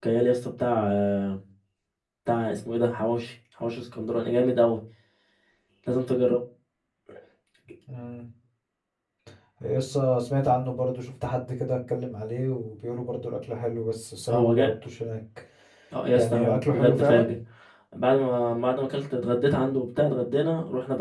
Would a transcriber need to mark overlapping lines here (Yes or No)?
Yes